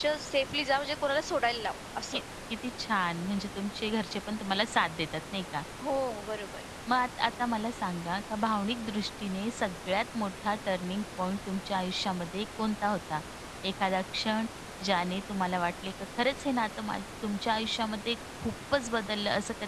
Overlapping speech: No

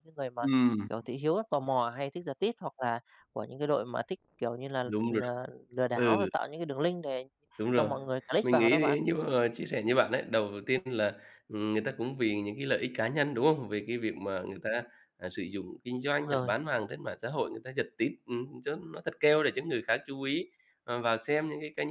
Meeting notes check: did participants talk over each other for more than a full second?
No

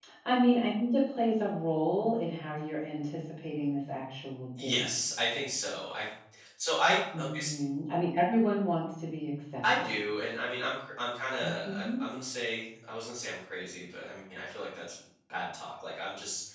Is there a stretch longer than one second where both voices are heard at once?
No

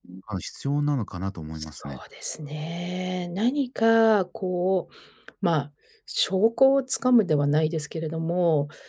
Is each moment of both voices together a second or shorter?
Yes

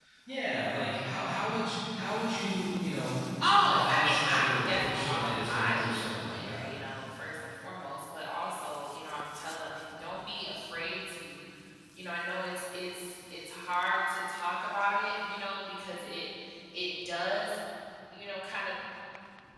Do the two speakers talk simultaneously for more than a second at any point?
Yes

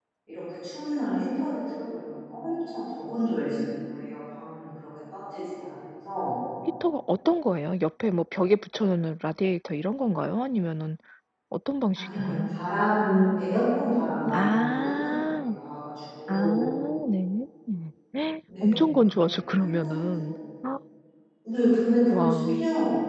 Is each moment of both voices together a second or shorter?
No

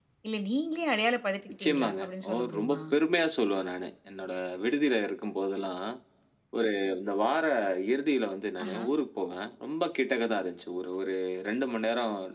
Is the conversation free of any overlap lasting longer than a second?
No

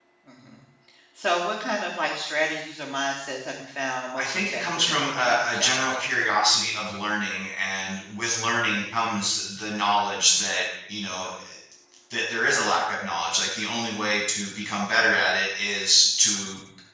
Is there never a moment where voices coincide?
No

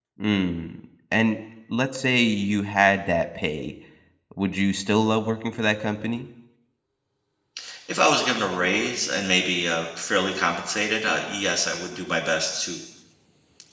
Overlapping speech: No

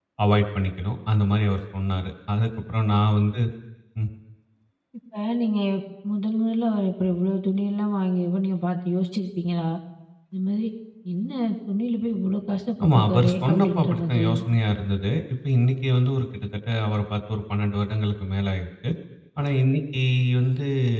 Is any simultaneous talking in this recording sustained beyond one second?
Yes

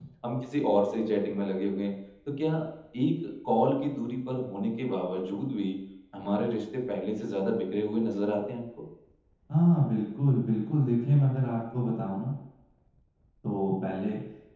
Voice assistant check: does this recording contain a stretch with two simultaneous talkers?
No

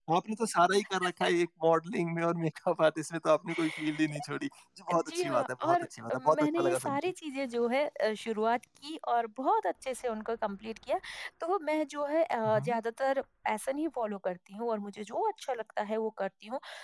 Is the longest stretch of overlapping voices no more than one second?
No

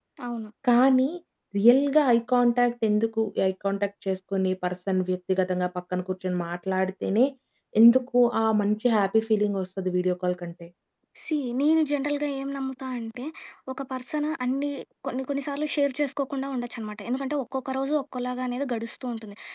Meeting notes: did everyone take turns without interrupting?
Yes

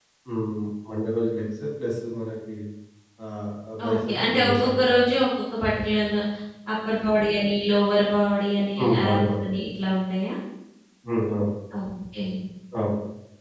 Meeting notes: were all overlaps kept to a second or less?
No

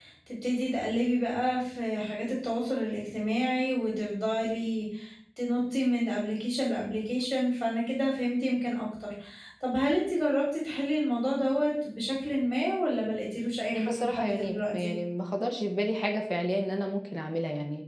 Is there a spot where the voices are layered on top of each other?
Yes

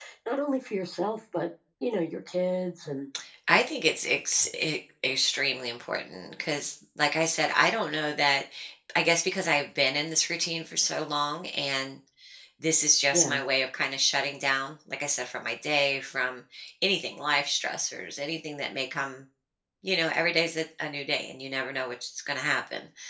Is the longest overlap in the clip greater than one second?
No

